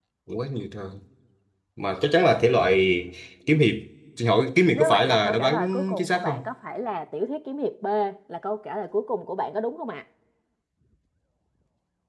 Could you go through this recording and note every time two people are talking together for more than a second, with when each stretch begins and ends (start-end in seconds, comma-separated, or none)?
4.7-6.5